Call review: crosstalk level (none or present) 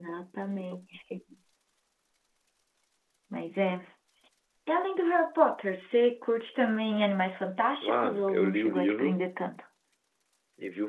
present